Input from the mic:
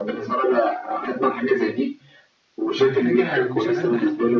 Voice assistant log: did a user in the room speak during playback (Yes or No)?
Yes